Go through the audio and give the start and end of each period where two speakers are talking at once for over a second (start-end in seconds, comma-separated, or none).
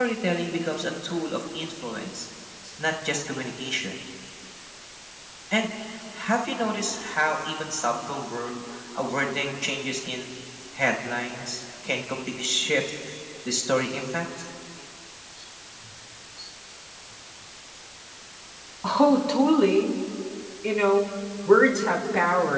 none